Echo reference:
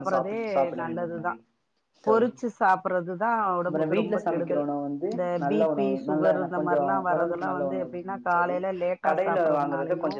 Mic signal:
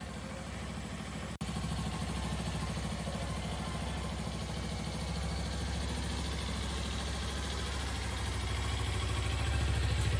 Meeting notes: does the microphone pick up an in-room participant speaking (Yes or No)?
No